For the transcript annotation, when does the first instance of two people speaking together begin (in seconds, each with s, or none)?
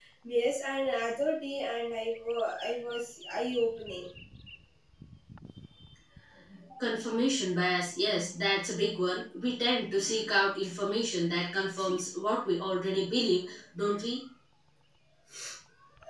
none